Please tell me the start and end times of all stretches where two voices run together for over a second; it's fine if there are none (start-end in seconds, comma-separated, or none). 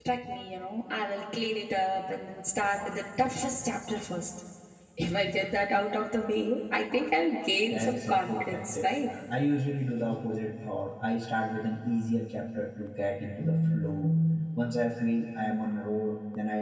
7.7-9.1